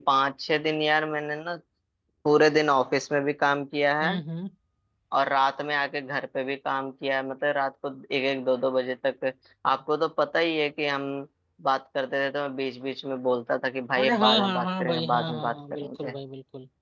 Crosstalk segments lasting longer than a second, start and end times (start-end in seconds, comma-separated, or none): 14.0-16.1